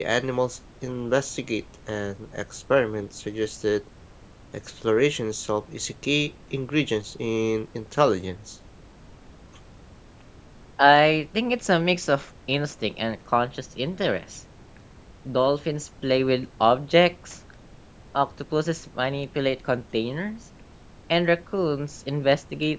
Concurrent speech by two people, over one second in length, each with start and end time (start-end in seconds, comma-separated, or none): none